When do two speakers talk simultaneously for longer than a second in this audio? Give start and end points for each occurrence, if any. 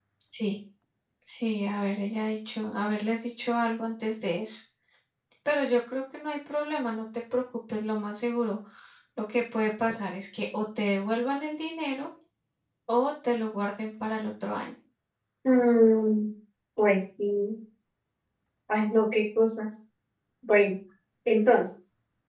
none

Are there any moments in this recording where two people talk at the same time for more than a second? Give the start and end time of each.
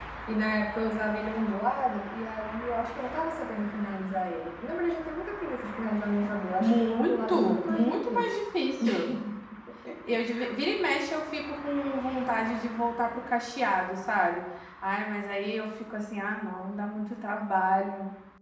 6.6-8.4

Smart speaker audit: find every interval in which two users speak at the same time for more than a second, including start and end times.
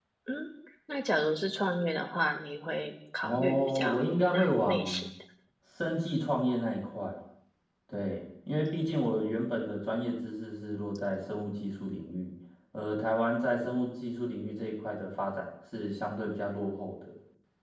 3.2-5.1

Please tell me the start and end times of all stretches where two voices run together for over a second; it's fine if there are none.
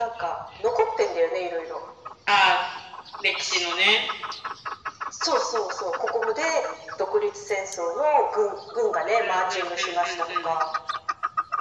9.0-10.6

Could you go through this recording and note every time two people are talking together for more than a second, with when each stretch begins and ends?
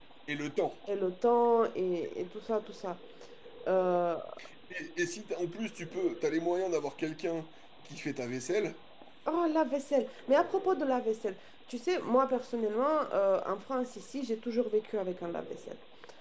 none

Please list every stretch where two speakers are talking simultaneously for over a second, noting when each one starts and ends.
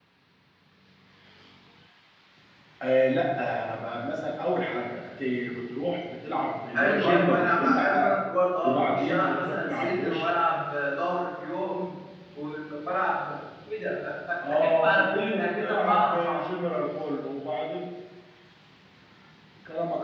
6.8-8.1, 8.6-10.3, 14.8-16.5

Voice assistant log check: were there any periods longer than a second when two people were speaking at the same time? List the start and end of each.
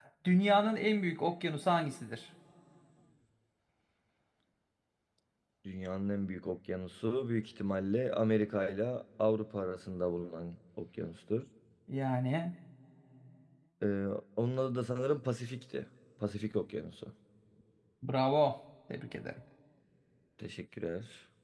none

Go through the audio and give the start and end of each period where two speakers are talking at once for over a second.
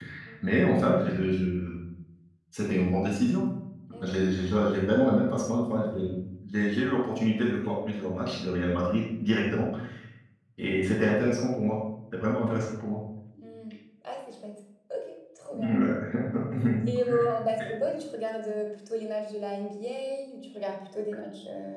none

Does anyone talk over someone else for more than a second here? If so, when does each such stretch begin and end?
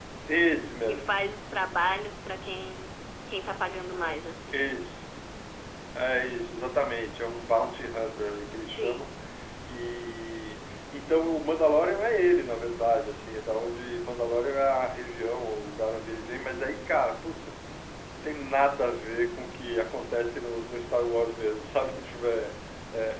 none

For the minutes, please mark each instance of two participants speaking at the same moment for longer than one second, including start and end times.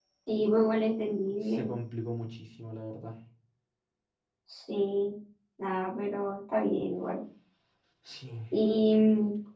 none

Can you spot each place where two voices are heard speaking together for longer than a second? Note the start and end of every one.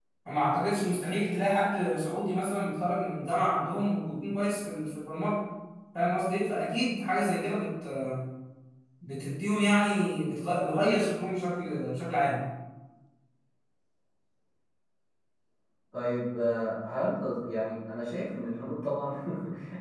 none

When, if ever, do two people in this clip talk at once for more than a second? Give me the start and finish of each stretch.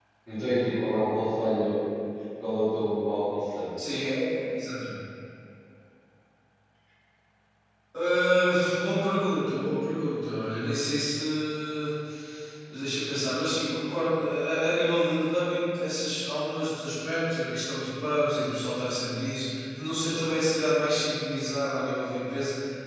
none

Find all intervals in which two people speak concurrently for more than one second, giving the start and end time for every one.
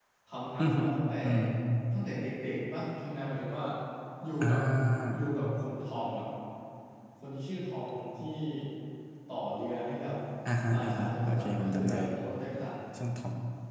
10.7-11.9

